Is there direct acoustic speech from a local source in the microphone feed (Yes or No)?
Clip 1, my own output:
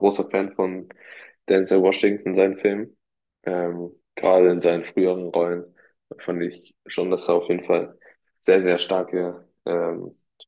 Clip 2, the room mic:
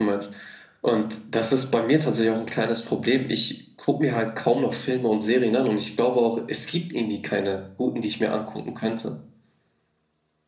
Yes